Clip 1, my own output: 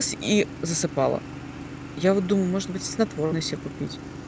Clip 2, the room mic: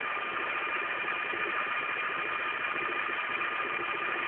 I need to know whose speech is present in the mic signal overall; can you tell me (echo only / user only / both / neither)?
neither